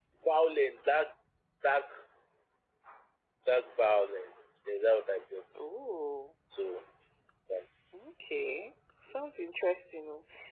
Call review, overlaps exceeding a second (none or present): none